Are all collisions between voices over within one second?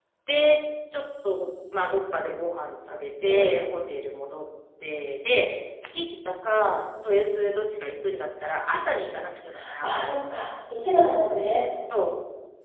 Yes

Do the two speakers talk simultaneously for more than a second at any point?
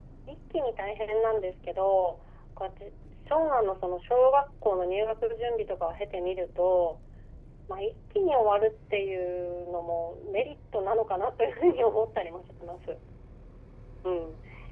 No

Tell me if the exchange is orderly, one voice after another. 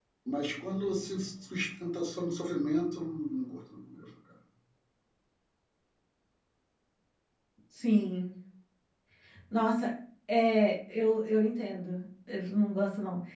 Yes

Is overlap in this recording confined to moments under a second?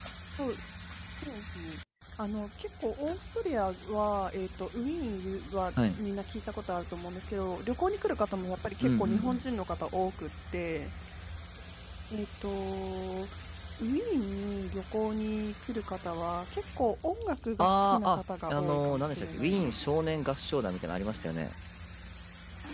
No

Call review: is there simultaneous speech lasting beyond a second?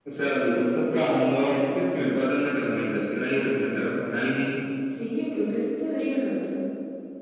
No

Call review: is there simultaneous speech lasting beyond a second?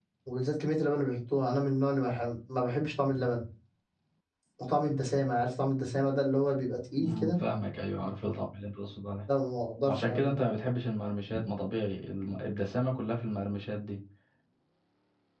No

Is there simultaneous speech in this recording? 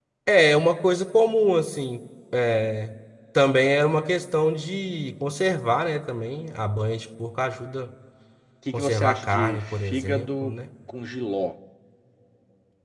Yes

